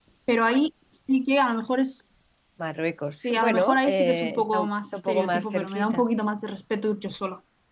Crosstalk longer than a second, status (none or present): present